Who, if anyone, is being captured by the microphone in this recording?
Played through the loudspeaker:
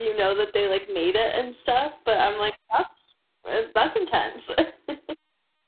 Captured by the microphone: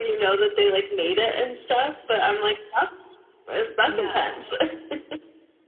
both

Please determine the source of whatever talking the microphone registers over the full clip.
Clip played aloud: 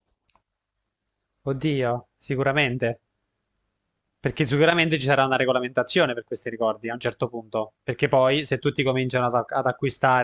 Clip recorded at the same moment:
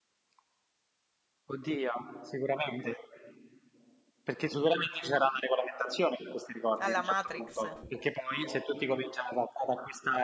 both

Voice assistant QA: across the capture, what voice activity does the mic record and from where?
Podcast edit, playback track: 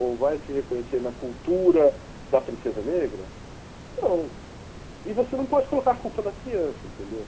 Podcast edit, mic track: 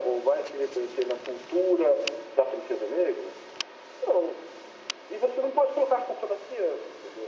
echo only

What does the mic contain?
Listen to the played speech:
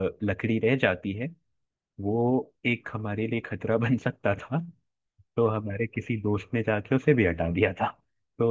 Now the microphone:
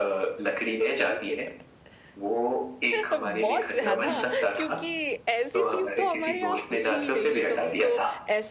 both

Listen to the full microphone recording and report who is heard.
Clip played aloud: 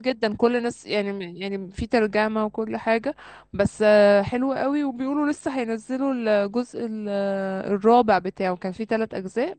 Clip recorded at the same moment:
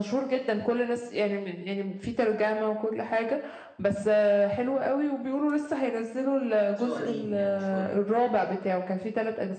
both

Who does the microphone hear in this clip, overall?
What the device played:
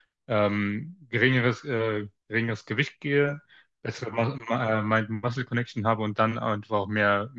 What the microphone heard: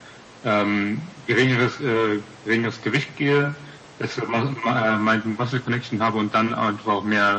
echo only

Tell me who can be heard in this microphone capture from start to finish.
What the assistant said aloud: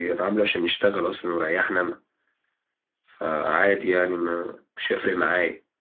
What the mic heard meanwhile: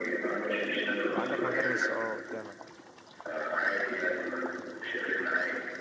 both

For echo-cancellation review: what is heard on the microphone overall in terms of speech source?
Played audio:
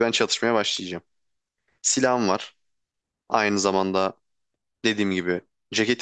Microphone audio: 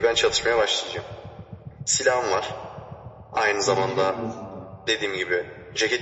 both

